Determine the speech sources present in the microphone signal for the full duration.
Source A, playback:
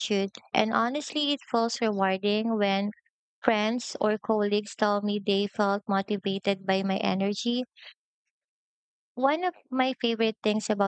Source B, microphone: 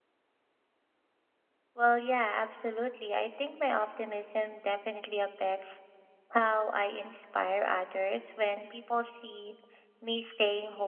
user only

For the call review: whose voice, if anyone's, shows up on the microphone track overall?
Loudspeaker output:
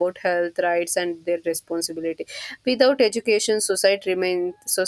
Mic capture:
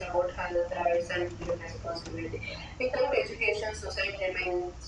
echo only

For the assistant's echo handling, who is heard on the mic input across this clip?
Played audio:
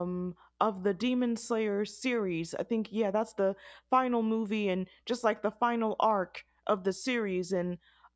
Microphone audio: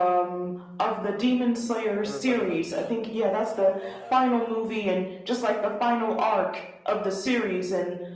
both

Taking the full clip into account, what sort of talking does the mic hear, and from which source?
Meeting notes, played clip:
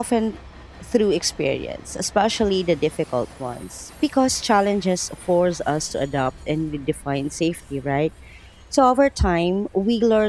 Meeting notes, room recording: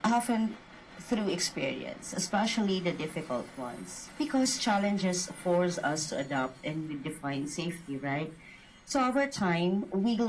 echo only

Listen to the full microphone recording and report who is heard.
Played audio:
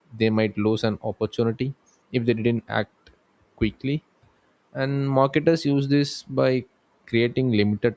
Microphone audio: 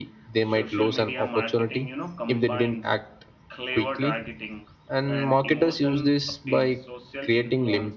both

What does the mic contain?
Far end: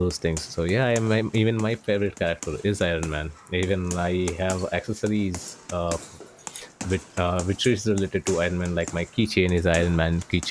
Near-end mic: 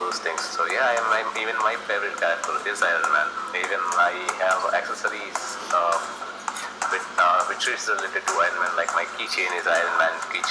echo only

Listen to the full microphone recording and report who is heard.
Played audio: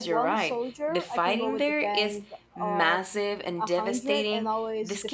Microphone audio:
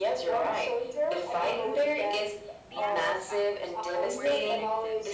both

